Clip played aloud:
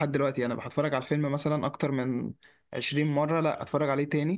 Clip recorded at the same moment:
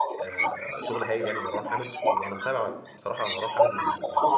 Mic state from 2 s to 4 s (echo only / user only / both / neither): both